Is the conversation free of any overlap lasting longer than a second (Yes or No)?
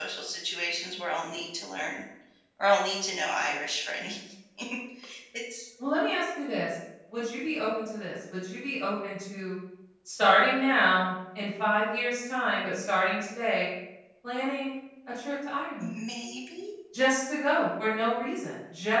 Yes